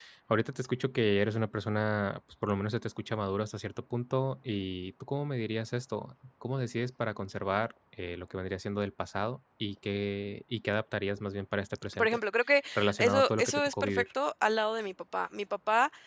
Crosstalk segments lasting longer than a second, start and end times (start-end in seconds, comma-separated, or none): 12.8-14.0